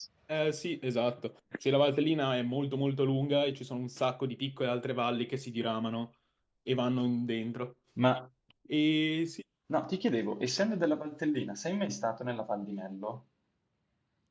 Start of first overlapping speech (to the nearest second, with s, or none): none